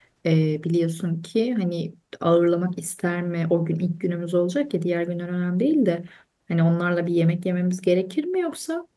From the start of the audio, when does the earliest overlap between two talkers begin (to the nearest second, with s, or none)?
none